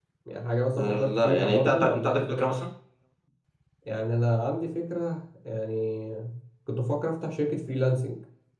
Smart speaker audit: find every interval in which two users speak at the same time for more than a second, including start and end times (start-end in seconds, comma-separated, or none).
0.8-2.6